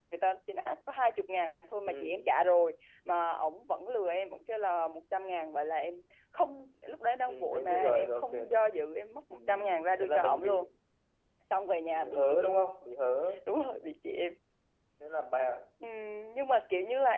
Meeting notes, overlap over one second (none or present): present